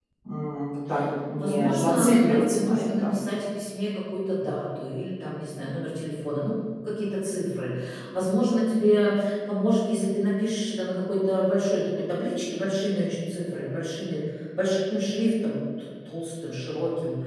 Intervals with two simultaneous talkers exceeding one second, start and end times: 1.4-3.3

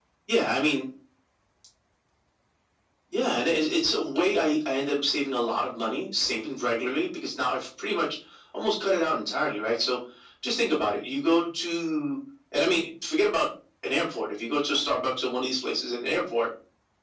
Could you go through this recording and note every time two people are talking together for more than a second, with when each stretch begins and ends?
none

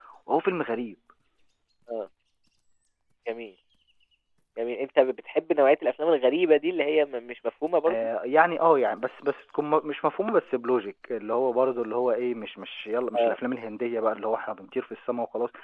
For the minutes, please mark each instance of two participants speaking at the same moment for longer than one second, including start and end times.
none

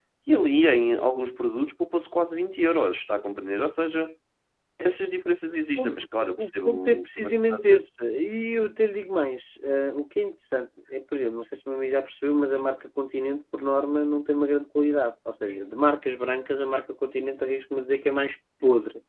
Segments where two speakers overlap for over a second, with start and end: 5.8-7.8

